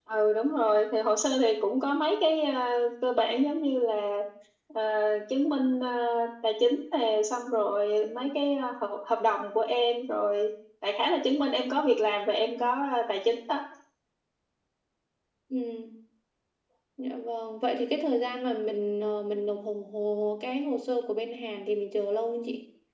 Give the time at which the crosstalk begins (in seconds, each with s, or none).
none